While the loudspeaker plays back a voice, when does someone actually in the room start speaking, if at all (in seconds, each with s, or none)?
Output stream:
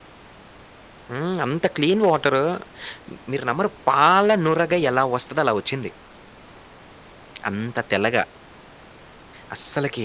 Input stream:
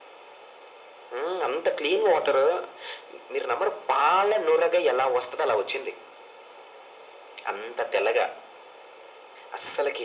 none